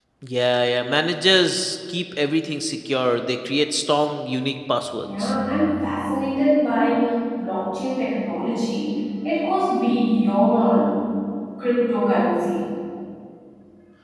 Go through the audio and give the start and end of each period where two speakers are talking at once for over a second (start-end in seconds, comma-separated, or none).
none